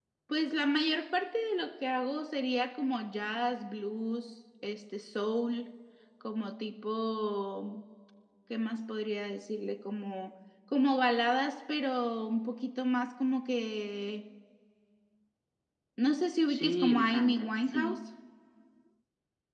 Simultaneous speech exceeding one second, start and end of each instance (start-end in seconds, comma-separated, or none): 16.5-18.0